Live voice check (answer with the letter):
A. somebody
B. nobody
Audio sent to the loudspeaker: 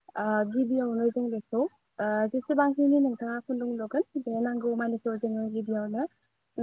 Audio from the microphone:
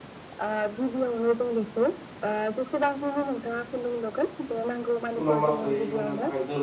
A